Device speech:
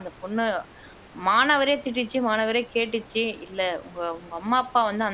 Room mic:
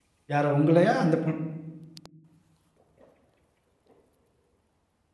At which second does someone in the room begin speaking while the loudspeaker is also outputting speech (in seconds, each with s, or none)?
0.3 s